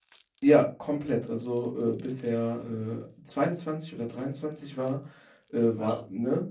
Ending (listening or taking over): listening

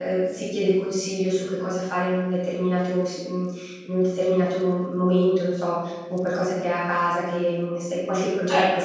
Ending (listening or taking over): taking over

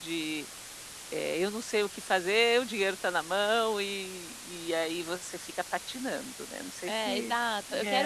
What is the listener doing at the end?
taking over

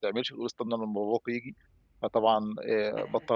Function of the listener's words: listening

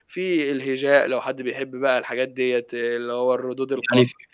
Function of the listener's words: taking over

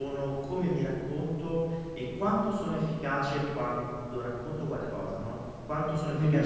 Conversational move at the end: taking over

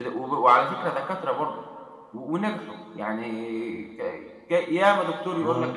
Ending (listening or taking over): listening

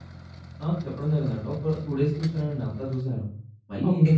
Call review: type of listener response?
listening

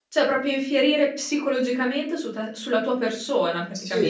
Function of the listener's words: taking over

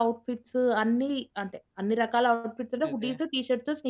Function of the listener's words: listening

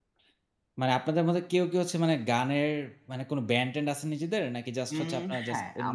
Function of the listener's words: taking over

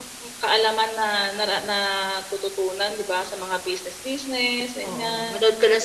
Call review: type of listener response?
taking over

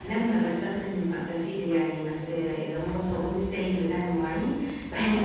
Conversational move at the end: listening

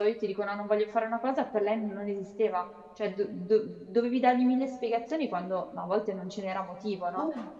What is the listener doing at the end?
listening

